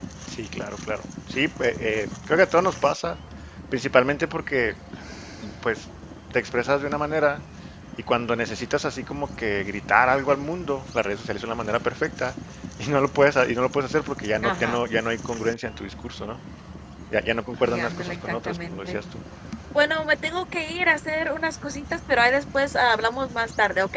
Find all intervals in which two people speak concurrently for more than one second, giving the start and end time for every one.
17.6-19.0

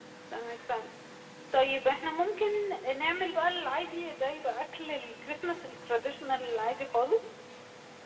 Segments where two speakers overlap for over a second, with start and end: none

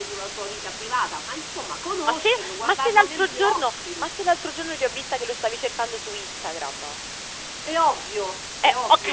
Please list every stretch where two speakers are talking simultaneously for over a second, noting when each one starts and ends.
2.1-4.1

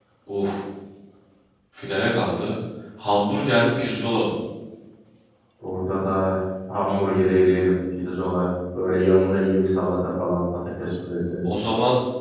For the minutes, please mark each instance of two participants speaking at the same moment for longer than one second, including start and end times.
none

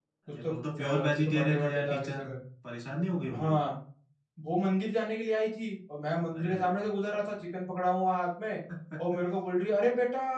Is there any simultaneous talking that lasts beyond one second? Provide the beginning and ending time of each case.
1.1-2.4

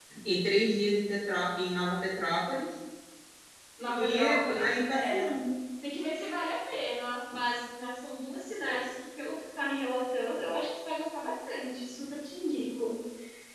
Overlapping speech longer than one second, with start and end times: 4.1-5.3

